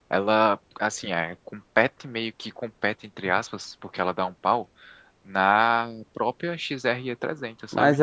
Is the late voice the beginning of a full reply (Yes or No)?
Yes